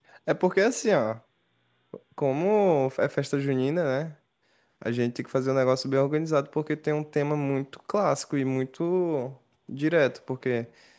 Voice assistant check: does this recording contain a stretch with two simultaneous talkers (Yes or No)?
No